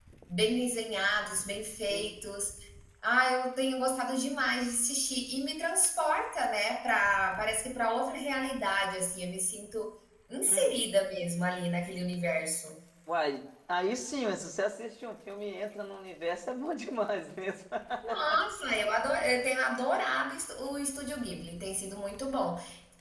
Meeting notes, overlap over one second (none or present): none